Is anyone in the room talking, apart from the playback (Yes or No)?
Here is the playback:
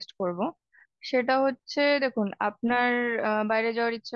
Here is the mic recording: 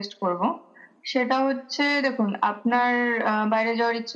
No